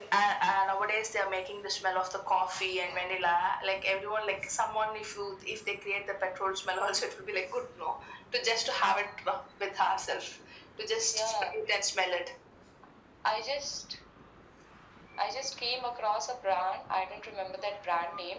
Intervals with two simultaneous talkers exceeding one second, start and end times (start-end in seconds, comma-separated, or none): none